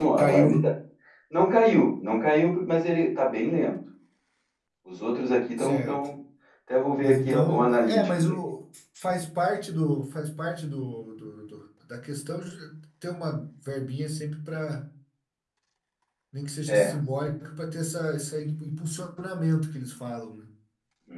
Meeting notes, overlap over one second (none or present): present